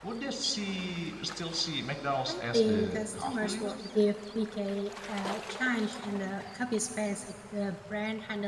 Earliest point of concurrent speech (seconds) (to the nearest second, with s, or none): 2 s